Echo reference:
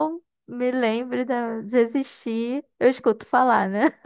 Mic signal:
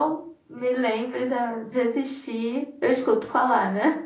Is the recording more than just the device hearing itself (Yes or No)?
No